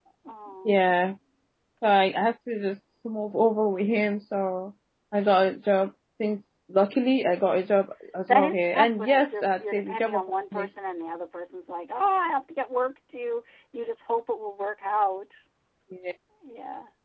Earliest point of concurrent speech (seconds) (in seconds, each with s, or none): 8.3 s